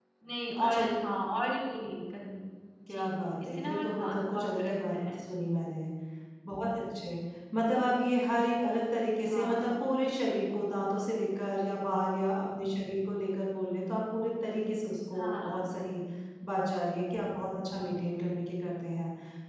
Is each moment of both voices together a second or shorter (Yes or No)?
No